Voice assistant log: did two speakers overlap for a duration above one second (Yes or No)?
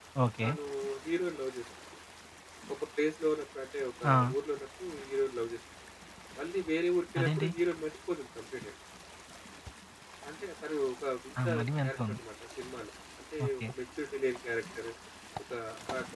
No